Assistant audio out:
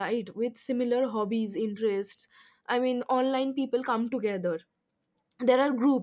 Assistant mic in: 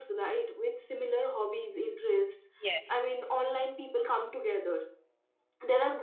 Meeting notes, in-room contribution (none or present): present